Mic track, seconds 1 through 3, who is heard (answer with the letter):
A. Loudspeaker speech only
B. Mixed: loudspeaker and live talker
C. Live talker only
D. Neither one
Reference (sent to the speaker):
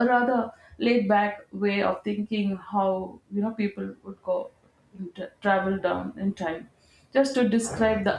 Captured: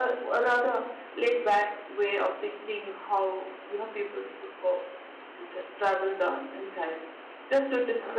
A